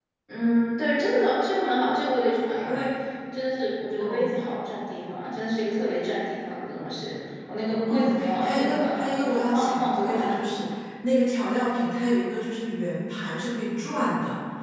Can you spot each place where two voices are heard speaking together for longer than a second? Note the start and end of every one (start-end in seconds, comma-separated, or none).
7.9-10.4